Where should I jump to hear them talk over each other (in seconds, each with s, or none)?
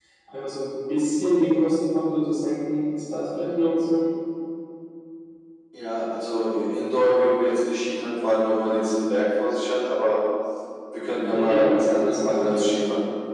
11.3 s